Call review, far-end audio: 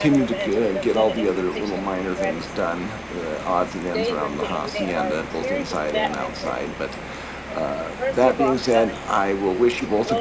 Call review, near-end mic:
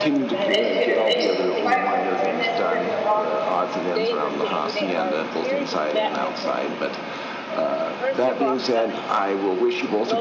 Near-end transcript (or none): I'm an educator of nations. I'm a fire starter. I'm an international bestseller author.